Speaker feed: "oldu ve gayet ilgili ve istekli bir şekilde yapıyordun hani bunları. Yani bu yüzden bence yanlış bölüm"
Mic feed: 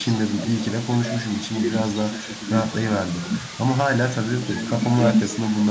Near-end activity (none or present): present